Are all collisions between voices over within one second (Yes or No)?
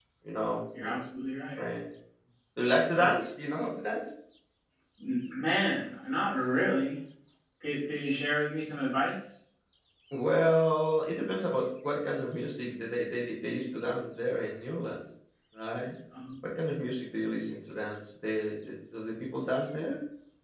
Yes